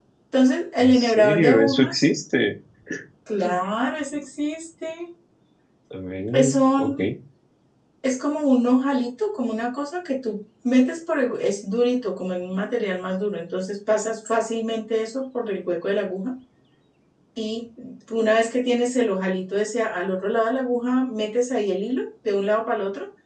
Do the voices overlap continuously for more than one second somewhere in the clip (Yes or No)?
Yes